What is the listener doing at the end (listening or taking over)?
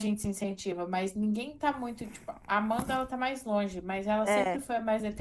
listening